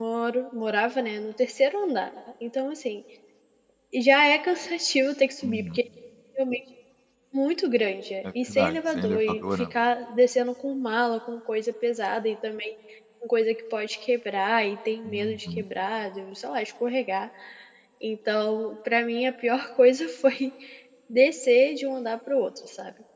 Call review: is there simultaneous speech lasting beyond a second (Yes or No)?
Yes